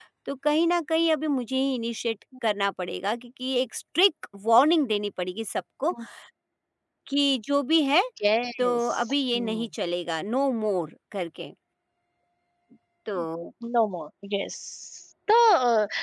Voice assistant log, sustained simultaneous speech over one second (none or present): none